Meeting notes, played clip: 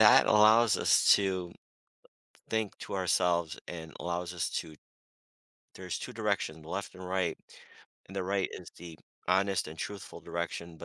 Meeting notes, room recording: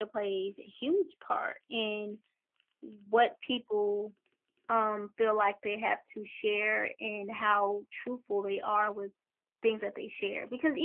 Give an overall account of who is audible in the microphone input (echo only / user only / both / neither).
user only